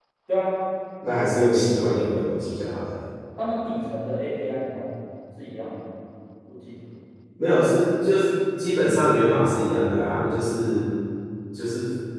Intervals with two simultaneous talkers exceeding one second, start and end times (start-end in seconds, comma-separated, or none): none